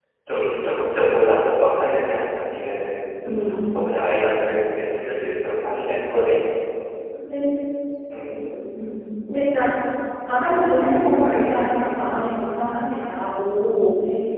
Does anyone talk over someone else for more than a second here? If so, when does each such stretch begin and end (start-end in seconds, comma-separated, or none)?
10.5-12.1